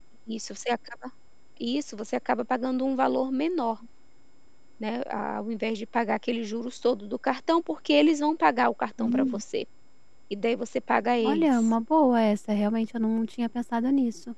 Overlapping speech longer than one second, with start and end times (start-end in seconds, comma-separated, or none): none